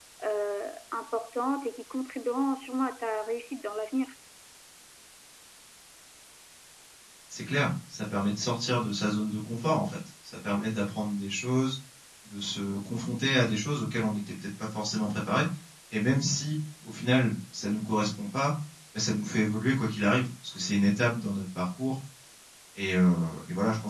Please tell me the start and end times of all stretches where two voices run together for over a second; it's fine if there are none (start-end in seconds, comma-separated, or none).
none